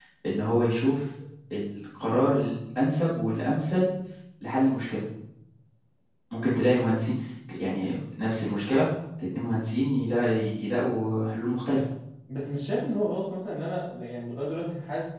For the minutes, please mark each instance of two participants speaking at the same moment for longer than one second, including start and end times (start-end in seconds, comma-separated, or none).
none